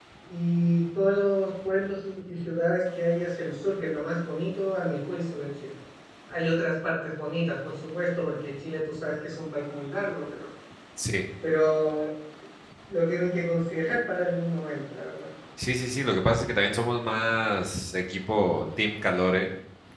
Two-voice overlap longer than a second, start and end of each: none

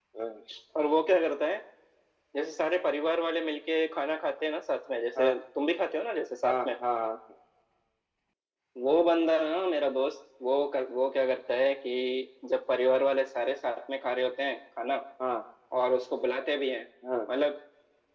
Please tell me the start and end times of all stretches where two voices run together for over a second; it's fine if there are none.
none

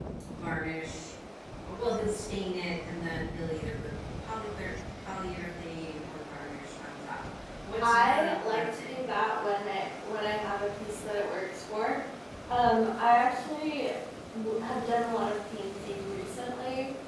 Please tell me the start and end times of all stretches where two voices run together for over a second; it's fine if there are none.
7.8-9.0

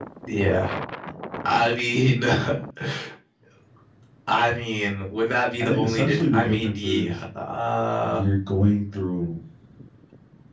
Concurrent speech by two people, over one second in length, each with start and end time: 5.6-7.2

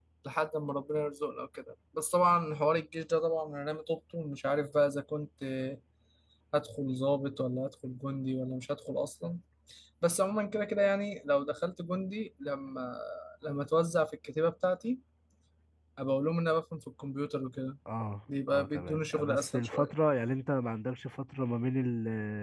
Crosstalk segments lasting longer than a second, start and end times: 18.5-19.9

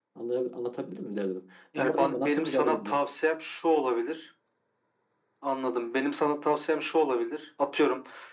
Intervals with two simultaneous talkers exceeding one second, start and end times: 1.8-3.0

